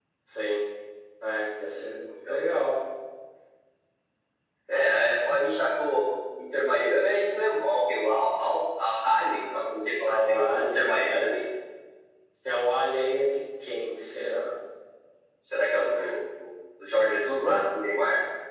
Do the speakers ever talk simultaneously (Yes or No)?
Yes